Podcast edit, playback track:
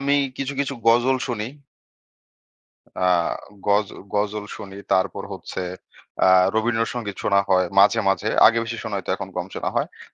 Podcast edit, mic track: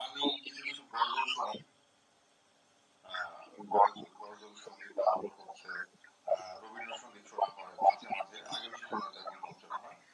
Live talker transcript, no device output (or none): none